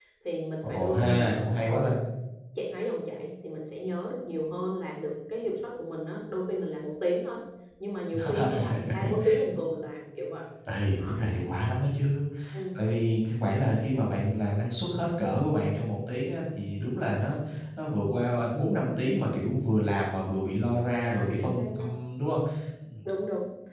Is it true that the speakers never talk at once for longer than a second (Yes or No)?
No